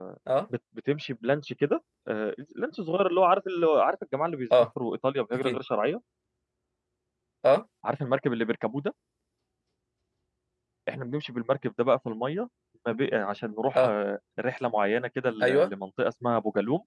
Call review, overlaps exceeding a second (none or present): none